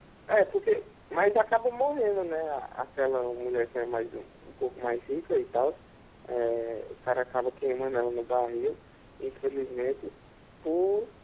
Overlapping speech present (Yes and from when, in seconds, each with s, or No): No